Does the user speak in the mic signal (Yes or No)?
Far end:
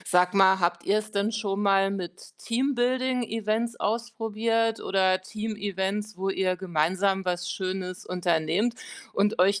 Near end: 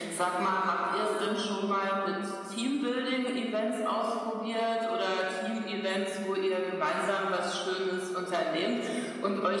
No